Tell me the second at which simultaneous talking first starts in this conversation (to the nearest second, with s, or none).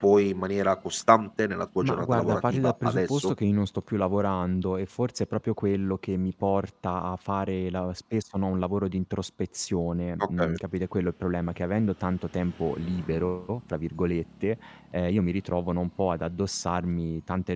2 s